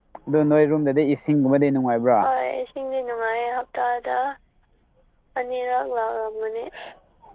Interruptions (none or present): none